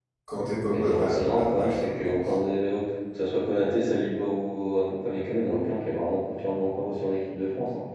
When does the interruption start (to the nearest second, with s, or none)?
1 s